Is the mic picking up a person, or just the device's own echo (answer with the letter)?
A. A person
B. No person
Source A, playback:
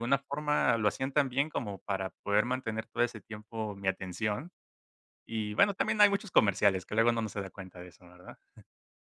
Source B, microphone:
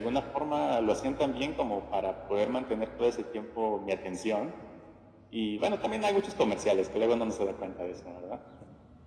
B